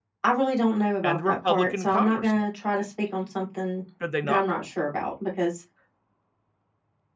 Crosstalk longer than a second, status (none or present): present